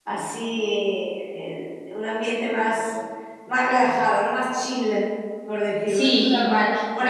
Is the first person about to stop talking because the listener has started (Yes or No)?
Yes